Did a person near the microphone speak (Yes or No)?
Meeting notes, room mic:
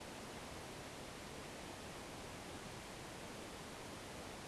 No